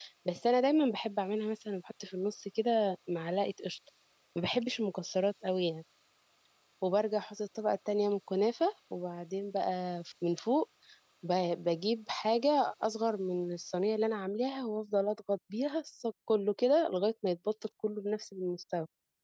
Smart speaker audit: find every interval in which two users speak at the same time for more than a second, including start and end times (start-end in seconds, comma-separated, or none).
none